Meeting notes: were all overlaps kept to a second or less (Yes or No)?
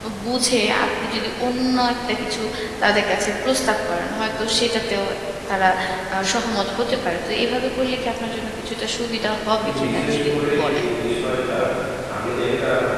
No